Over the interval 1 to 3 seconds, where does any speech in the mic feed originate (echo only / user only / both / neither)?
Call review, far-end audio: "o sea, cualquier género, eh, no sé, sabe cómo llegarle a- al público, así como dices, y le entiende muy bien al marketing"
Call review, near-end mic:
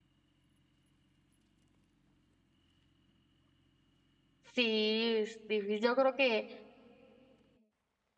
neither